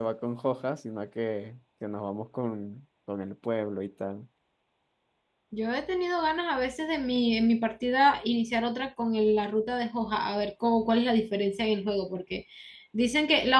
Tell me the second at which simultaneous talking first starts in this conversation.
none

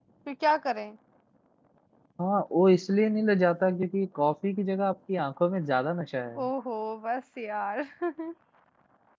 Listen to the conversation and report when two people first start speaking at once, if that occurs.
none

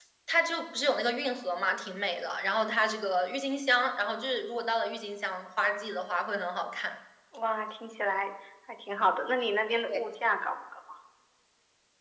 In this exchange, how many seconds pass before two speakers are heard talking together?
none

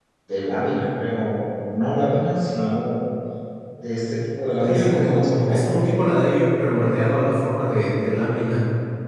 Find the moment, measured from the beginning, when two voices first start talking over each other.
4.6 s

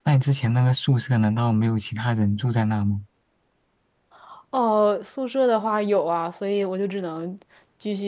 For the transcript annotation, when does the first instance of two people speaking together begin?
none

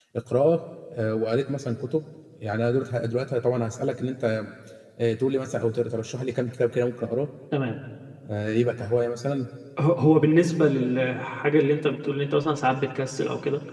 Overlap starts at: none

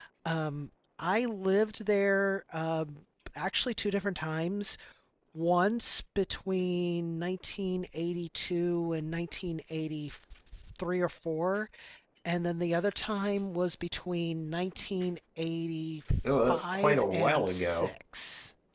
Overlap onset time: 16.2 s

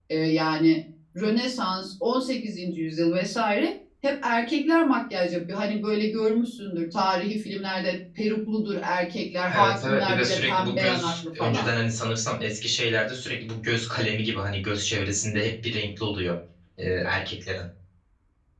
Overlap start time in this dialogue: 9.5 s

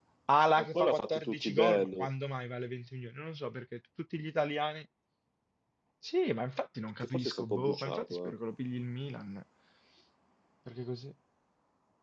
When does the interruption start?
0.6 s

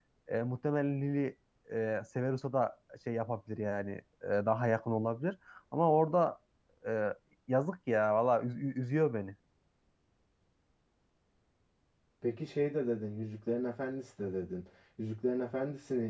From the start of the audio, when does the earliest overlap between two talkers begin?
none

